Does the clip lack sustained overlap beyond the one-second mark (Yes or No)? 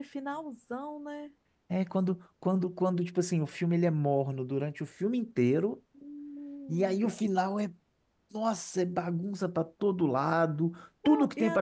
Yes